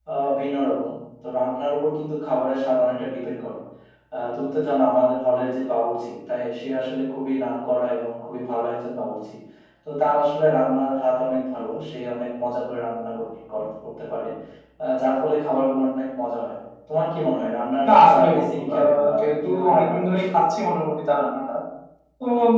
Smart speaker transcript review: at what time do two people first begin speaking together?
18 s

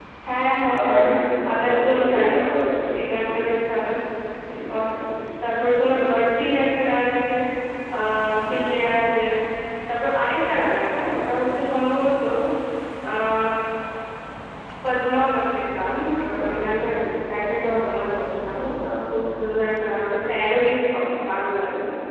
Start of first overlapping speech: 1 s

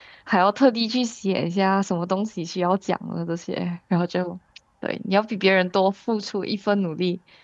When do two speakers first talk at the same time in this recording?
none

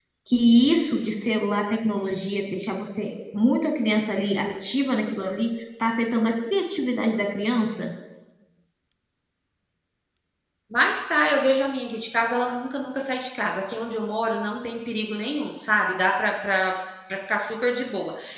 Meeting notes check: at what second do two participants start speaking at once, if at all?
none

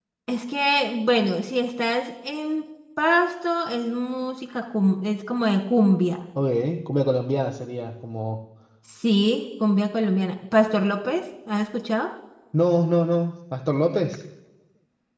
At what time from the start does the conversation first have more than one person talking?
none

